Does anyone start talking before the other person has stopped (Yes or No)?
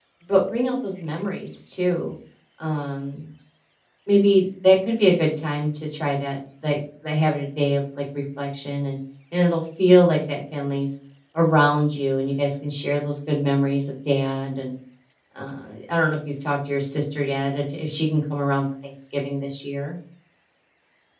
No